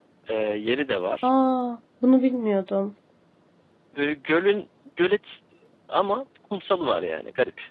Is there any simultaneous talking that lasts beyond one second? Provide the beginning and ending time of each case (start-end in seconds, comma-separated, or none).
none